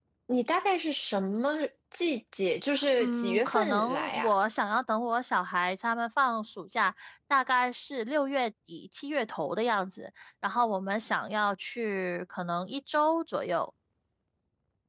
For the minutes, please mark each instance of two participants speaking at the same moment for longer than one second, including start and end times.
3.0-4.3

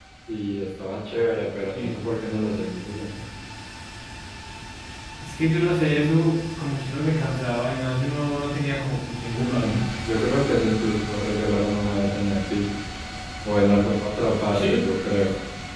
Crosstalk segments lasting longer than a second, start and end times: none

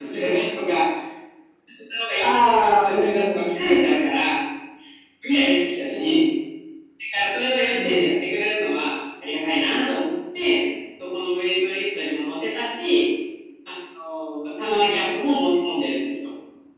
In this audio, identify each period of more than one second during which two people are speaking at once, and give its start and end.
2.2-3.5

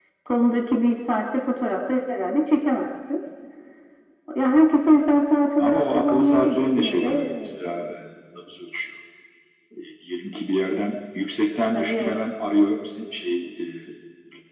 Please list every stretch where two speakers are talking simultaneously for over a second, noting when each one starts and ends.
5.6-7.3

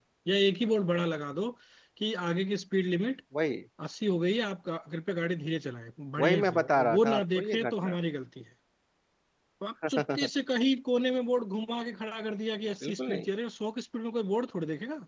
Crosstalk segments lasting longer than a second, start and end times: 6.2-8.0

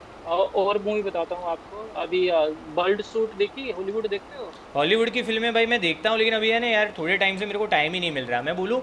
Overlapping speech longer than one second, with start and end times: none

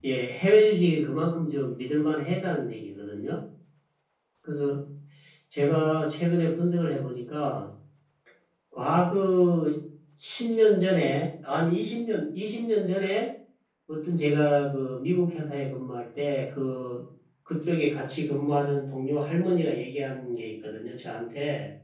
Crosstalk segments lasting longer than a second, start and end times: none

